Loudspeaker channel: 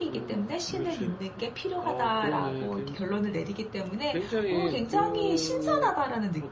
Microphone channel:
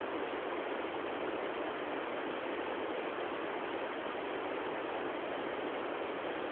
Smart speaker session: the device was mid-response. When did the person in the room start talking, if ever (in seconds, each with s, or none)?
none